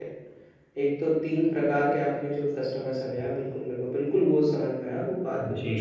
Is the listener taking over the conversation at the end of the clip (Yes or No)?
Yes